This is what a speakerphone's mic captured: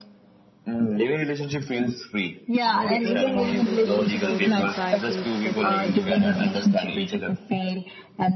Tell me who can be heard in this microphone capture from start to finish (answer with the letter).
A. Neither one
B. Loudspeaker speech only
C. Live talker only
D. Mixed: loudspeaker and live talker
D